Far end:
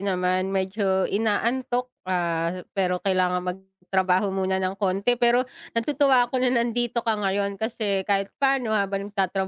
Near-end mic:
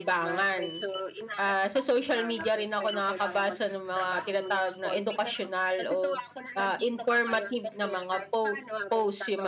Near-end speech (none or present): present